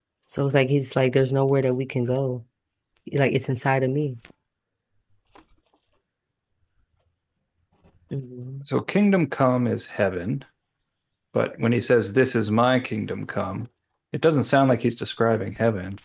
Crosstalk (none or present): none